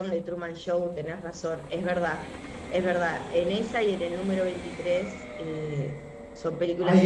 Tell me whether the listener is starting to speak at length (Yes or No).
Yes